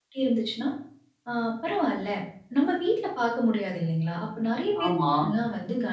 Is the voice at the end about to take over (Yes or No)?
No